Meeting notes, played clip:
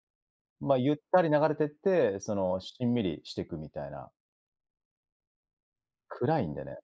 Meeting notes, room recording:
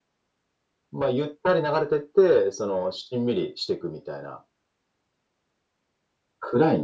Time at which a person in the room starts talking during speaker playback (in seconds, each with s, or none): none